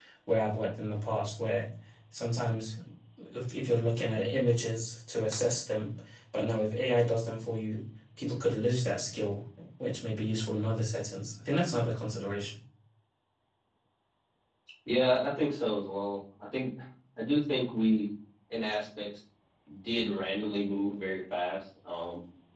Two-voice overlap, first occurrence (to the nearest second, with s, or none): none